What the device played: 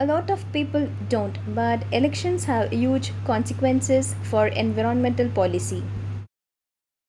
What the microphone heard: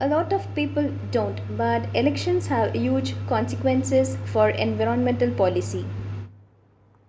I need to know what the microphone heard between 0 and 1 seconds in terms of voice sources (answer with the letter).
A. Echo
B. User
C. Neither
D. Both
A